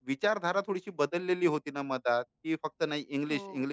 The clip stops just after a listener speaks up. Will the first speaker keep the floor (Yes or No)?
Yes